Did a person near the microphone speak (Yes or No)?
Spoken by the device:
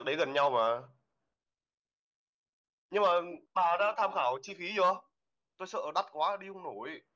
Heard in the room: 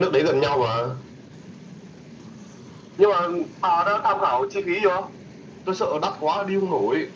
No